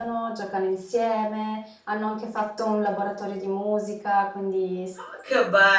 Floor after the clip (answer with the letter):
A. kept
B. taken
B